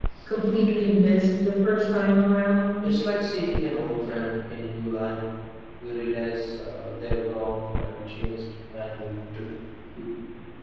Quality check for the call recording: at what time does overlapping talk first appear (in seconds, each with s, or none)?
none